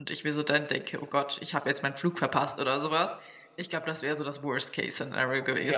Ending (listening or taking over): taking over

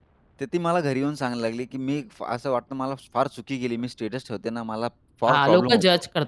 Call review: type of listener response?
taking over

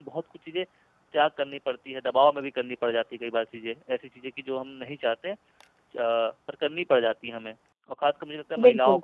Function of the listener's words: listening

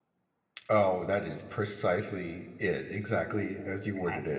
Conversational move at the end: taking over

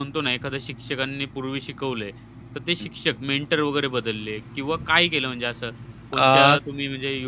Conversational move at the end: listening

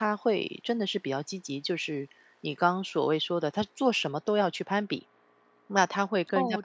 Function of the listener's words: taking over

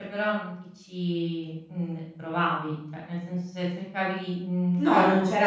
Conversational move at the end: taking over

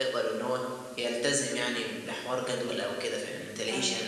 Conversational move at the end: taking over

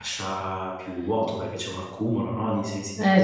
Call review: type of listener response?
taking over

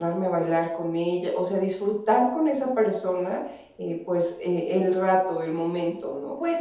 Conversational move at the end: taking over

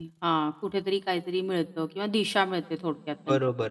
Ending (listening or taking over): taking over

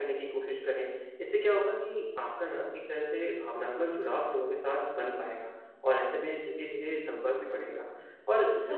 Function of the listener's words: listening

